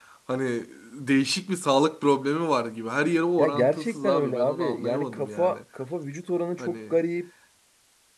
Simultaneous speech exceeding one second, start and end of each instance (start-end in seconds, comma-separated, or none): 3.4-5.6